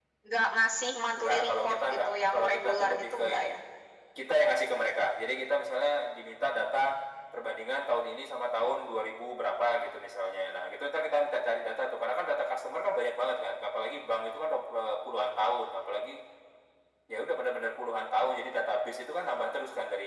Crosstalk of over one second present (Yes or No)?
Yes